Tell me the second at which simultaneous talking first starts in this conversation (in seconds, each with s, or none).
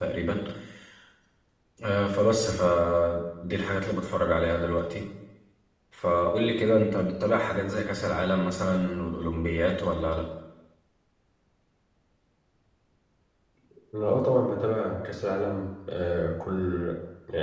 none